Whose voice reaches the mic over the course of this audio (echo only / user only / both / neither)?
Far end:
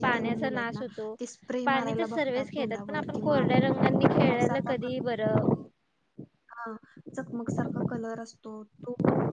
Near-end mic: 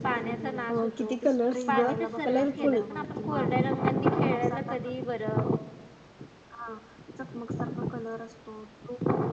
both